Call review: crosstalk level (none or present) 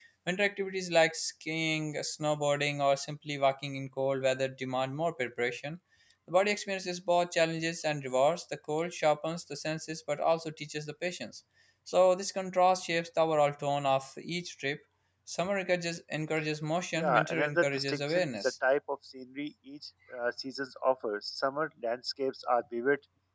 present